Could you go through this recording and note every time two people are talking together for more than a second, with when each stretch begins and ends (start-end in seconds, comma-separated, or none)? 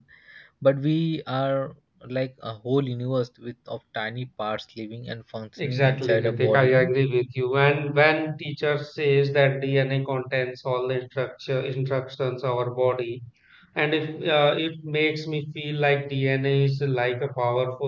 5.6-6.9